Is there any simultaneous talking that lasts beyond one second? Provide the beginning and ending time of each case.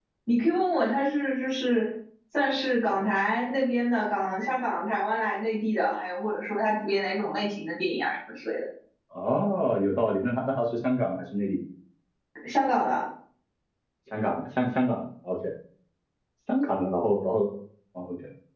none

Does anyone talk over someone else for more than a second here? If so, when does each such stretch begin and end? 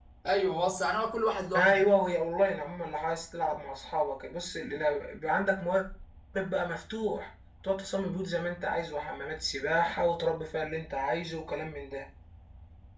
none

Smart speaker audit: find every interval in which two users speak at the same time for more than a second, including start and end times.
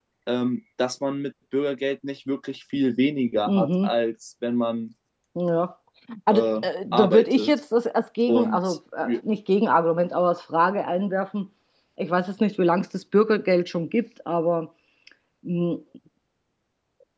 6.3-7.6

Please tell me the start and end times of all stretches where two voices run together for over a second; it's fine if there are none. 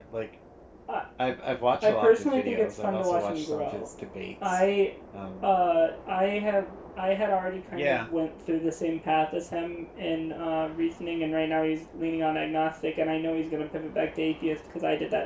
1.8-3.9

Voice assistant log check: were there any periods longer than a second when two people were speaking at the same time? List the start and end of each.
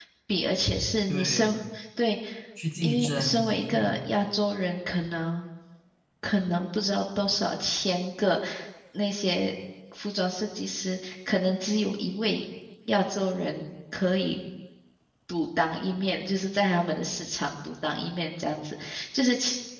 2.8-4.1

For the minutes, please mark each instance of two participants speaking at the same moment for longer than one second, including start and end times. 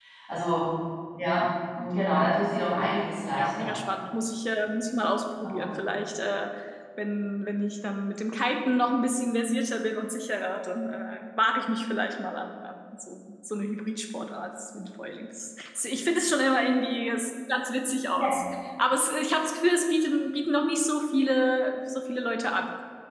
none

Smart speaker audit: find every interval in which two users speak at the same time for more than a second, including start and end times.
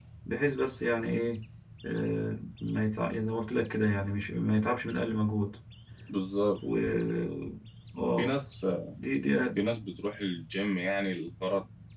none

